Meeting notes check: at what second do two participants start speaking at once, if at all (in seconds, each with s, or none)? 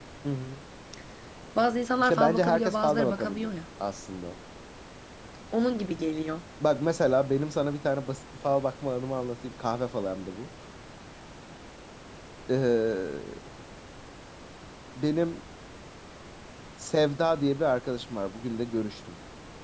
2.0 s